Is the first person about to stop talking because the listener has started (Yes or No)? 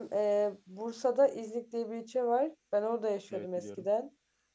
No